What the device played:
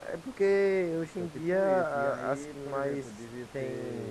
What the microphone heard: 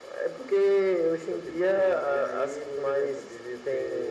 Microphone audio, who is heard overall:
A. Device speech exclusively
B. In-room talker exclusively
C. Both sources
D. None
A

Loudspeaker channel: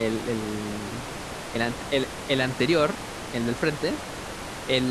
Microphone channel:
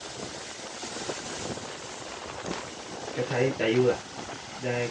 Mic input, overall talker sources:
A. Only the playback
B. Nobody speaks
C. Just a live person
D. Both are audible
C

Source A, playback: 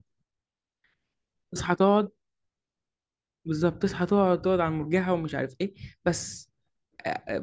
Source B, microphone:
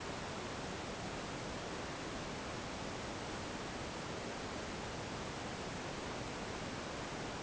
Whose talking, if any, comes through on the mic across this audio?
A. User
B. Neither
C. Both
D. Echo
B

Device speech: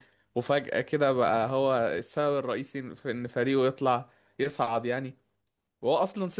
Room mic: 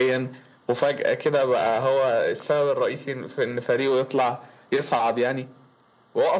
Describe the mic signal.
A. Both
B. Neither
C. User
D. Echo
D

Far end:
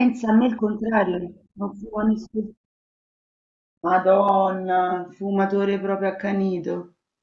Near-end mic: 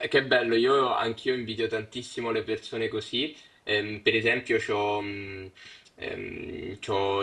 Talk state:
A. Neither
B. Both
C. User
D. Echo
C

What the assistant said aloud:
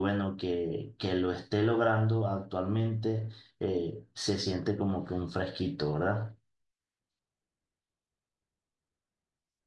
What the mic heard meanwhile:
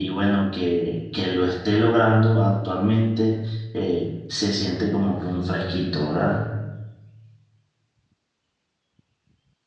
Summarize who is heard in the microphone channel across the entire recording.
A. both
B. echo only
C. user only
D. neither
B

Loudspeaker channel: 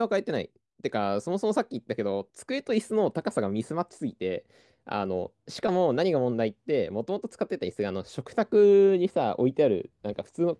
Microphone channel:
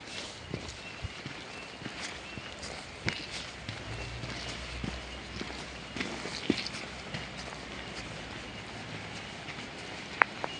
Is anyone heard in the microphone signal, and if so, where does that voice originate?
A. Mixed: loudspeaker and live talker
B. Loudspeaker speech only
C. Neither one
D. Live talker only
C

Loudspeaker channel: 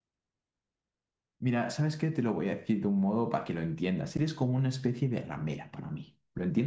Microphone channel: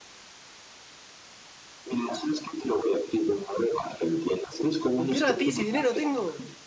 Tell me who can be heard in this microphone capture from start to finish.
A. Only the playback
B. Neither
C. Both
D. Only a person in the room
C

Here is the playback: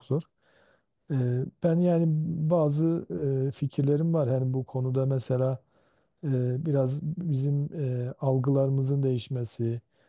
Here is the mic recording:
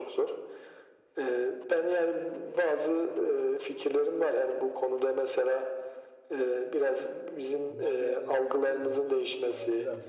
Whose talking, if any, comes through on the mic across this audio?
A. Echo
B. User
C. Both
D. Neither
C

